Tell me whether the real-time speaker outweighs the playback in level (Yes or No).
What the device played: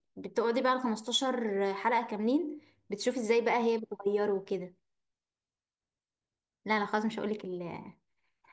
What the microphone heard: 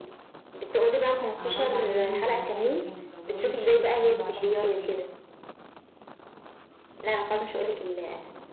No